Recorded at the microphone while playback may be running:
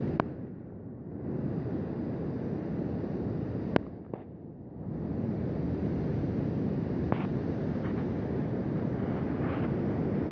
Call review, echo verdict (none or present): none